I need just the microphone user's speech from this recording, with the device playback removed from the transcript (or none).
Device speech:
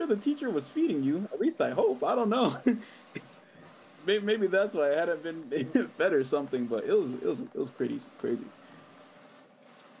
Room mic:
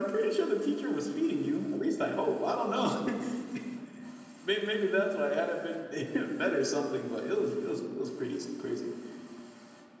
none